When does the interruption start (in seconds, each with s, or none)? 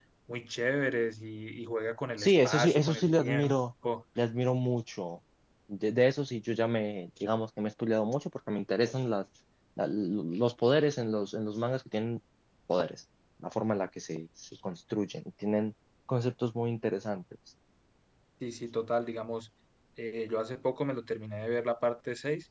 2.2 s